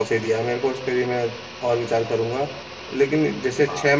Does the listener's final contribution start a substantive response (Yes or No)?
No